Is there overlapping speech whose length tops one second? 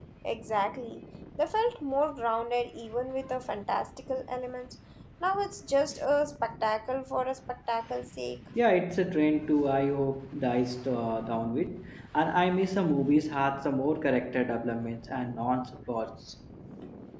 No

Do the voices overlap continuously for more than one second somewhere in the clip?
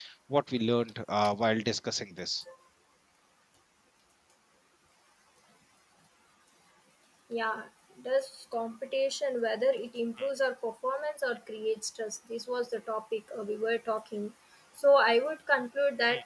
No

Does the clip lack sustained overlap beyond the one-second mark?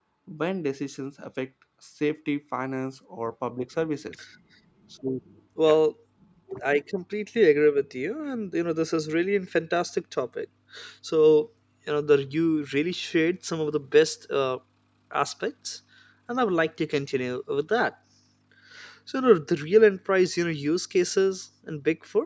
Yes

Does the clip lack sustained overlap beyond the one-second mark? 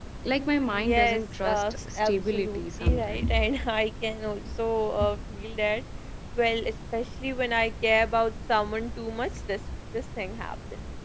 No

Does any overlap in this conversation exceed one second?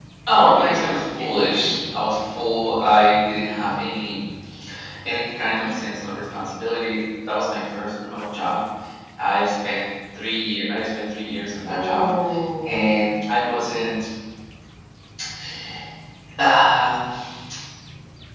Yes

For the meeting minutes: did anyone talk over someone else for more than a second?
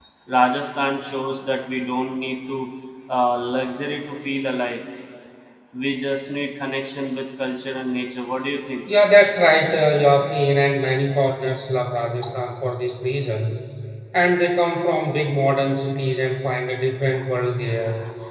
No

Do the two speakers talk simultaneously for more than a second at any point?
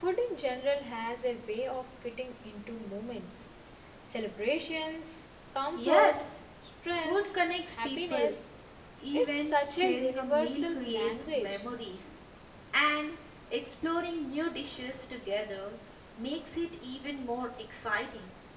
Yes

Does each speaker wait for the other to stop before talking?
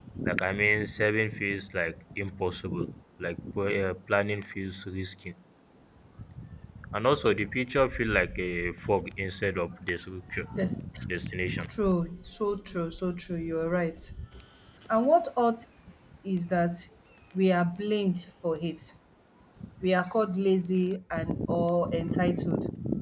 Yes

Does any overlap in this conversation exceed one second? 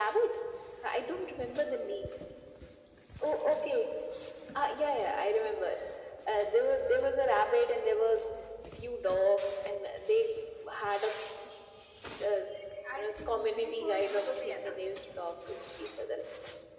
Yes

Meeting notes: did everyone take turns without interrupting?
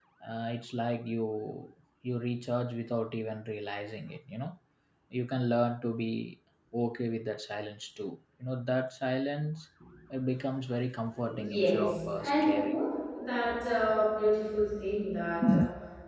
No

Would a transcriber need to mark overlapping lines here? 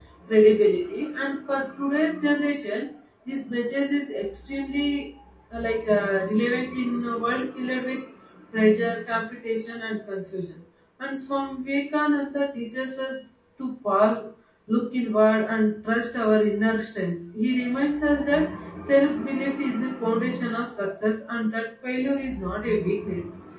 No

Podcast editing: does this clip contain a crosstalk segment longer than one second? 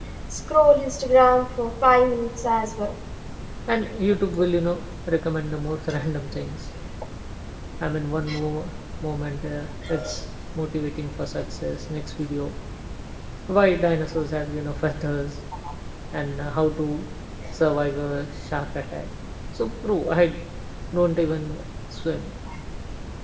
No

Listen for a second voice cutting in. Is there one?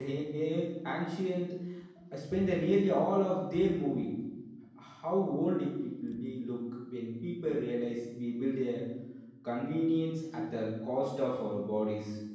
No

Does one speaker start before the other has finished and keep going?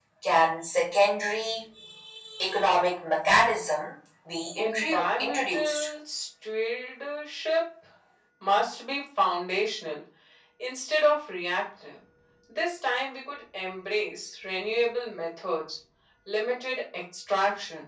Yes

